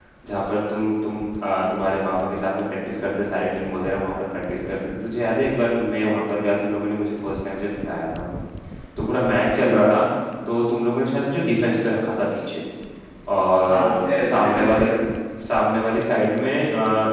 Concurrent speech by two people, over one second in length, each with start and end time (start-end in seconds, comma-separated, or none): 13.7-14.9